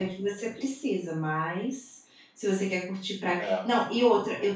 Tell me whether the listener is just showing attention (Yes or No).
Yes